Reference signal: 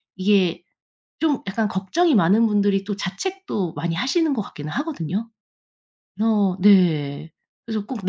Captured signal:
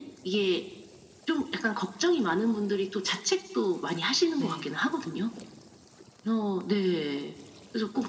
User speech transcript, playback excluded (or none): 네.